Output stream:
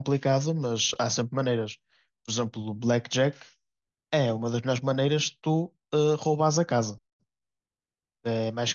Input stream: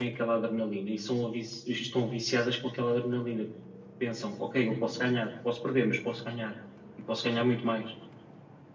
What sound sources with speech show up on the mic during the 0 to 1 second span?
user only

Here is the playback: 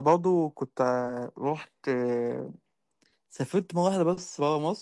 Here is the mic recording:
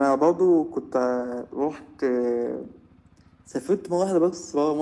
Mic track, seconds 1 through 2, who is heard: echo only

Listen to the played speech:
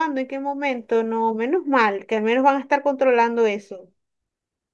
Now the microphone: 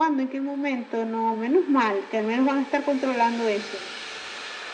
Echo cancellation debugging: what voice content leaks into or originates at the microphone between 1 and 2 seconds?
echo only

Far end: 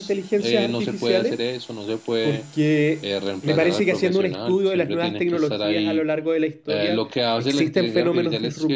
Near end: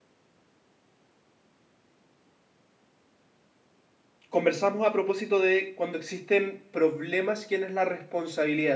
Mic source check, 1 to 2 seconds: neither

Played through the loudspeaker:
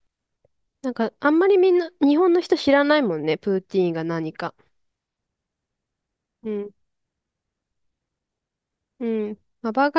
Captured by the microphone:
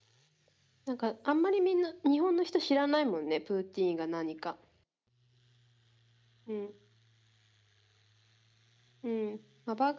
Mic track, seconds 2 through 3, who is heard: echo only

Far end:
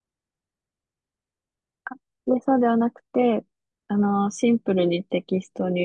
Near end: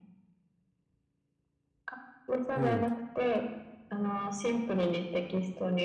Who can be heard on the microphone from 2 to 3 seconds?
both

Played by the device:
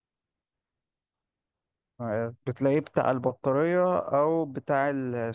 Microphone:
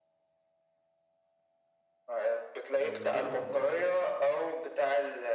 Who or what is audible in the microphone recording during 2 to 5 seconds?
both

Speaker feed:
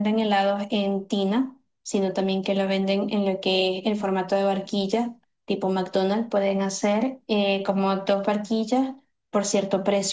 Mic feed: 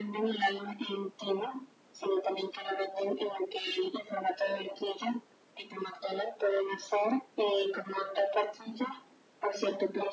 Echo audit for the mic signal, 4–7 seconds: echo only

